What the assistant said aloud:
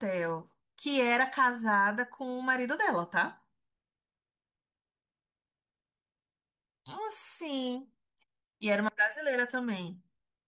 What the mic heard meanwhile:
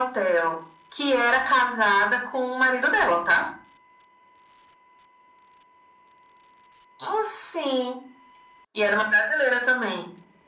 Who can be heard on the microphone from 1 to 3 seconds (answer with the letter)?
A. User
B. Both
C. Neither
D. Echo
D